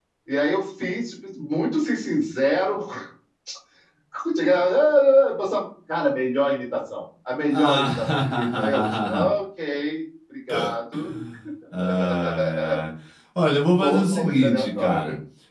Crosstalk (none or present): present